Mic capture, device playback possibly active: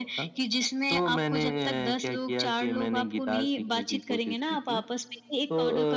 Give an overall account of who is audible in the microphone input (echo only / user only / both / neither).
echo only